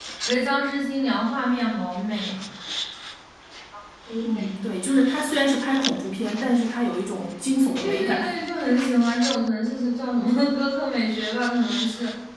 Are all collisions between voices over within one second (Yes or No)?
Yes